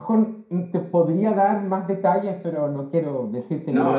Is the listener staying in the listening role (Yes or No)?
No